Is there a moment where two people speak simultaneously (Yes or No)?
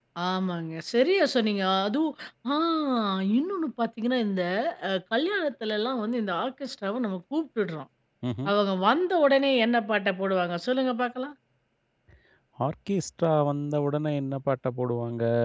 No